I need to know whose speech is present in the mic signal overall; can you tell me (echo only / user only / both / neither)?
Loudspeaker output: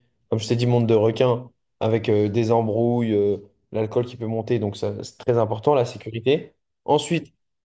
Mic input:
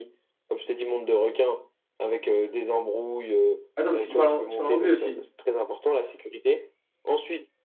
both